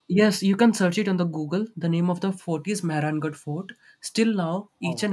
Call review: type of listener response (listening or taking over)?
listening